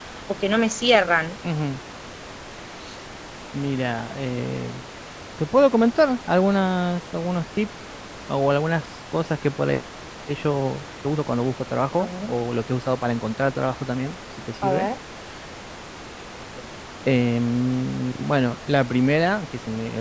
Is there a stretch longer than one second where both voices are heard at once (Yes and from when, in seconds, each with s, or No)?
No